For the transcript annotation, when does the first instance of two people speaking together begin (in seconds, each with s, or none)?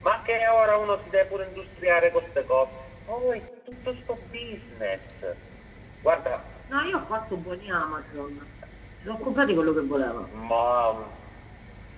none